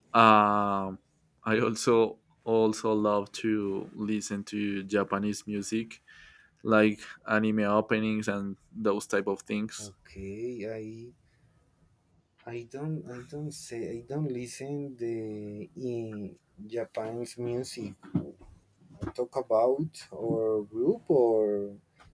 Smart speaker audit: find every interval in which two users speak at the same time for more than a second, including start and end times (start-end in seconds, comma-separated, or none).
none